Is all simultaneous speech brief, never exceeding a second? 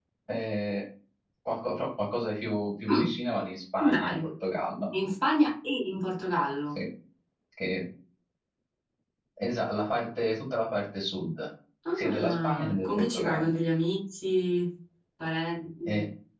No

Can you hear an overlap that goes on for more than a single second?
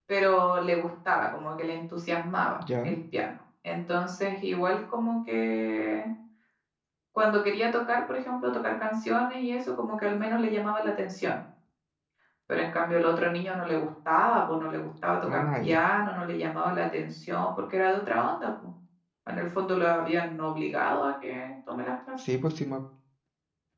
No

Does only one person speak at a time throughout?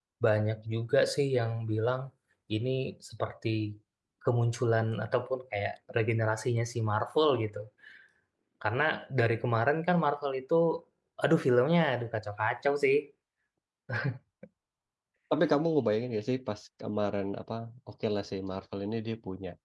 Yes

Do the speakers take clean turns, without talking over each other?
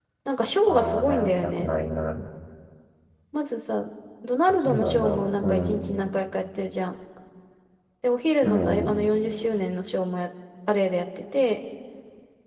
No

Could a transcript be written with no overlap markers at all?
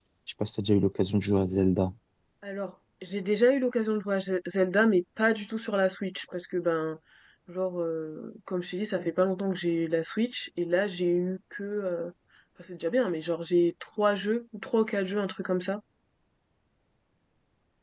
Yes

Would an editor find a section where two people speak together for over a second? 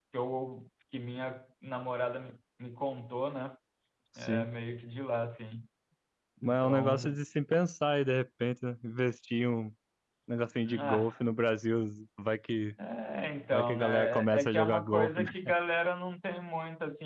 Yes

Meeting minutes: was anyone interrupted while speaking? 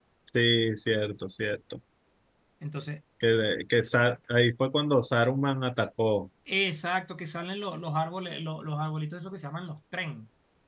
No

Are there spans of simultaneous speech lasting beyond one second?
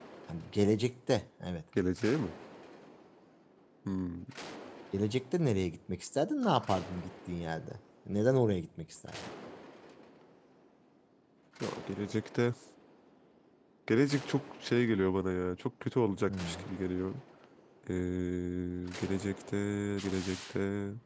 No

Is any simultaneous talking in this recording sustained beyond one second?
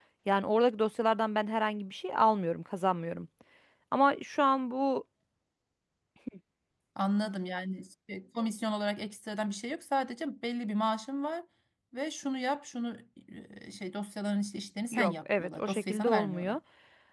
Yes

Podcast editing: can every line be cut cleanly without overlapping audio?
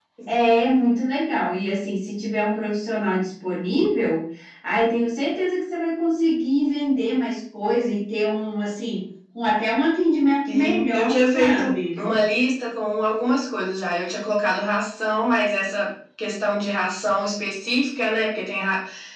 No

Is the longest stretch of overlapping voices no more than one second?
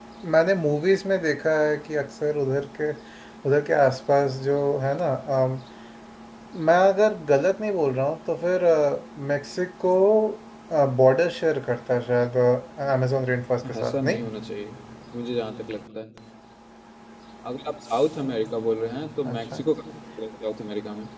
Yes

